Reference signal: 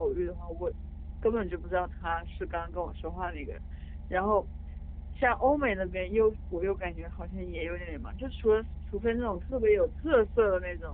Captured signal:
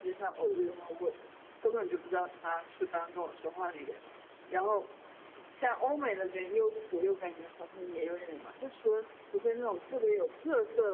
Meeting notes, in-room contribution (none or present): none